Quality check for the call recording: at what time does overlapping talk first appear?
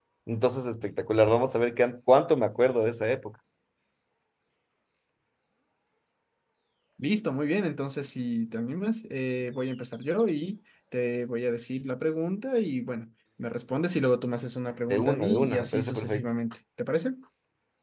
14.9 s

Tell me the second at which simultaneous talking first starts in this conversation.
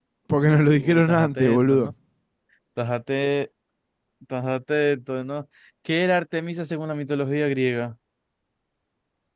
0.7 s

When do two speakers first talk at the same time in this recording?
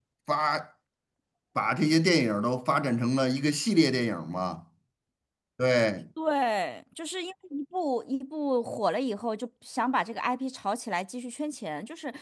none

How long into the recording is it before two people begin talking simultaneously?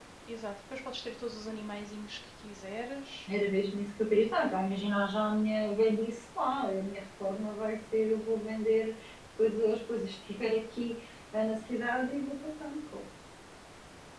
none

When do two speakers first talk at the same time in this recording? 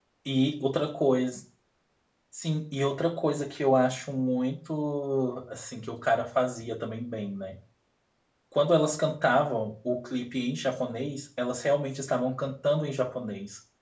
none

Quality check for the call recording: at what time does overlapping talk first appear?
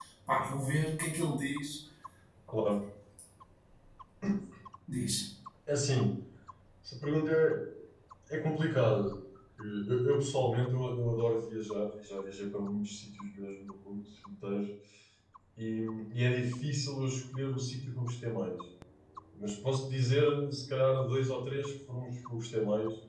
none

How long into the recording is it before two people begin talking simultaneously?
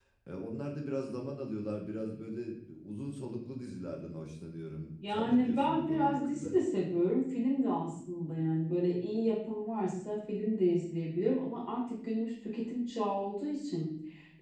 5.0 s

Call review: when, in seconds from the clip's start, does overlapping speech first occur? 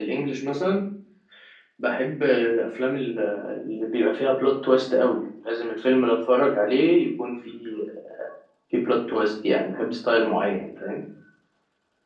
none

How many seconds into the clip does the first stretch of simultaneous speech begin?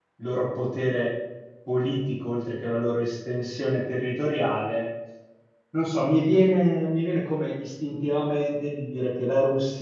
none

